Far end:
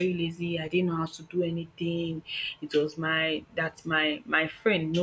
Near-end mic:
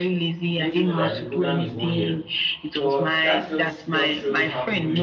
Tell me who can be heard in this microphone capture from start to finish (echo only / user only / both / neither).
both